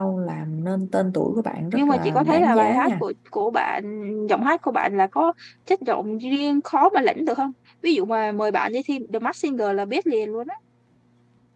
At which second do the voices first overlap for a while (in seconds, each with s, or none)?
1.7 s